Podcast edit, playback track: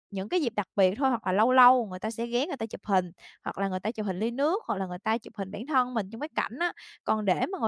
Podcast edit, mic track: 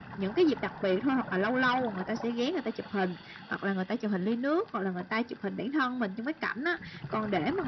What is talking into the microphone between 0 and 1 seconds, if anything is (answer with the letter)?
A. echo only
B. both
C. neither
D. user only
A